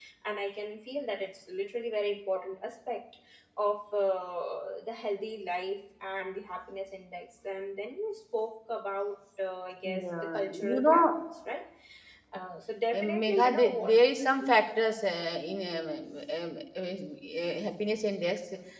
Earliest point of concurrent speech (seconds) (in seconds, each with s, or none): 9.8 s